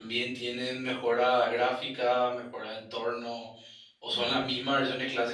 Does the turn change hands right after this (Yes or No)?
No